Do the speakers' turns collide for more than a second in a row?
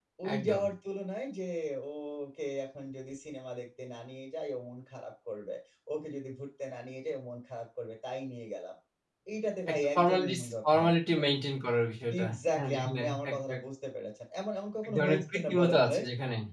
Yes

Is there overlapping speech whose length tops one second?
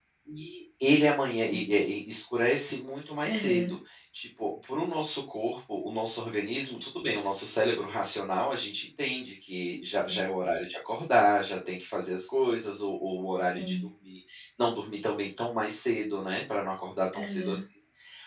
No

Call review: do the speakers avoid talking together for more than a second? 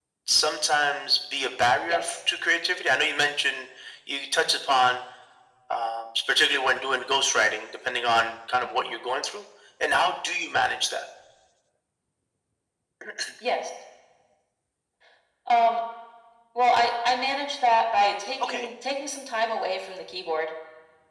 Yes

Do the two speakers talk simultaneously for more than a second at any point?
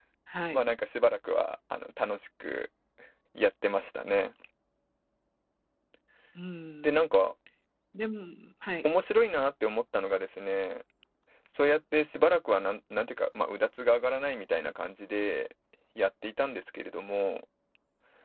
No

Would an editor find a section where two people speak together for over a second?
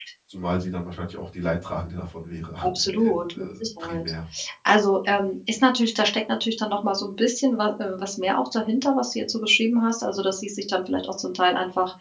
Yes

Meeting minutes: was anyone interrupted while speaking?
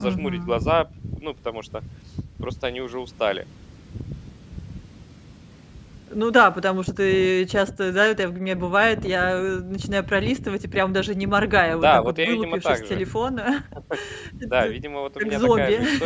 Yes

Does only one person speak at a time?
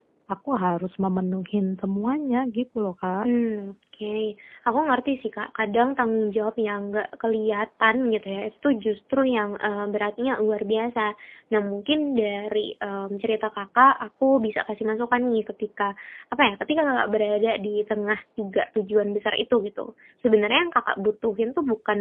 Yes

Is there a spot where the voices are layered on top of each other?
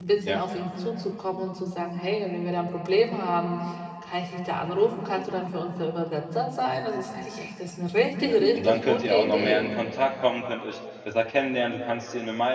Yes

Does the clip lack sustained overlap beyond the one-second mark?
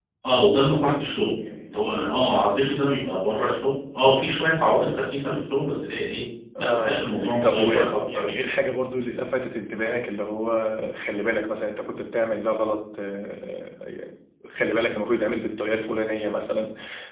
No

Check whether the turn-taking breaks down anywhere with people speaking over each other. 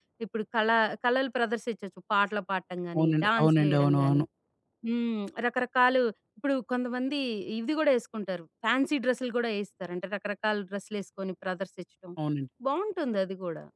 Yes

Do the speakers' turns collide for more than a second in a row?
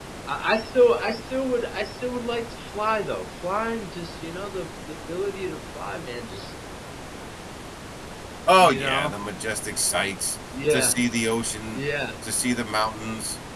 No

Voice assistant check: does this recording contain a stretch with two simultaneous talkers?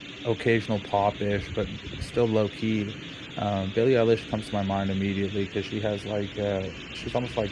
No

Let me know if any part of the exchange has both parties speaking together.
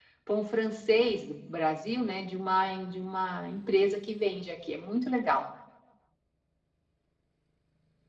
No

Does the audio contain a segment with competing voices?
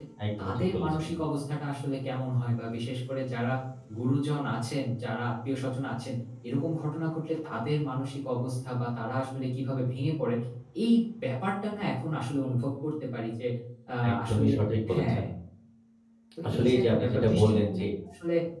Yes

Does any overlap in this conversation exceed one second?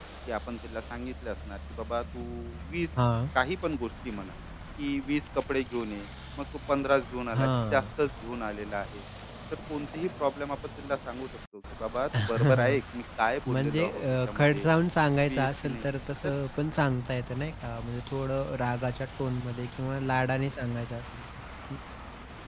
Yes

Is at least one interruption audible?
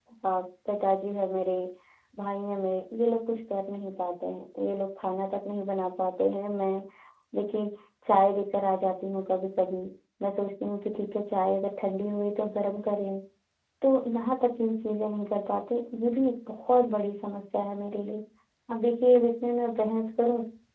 No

